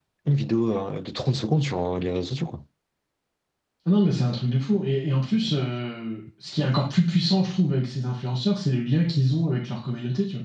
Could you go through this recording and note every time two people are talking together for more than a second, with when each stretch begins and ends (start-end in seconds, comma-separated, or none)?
none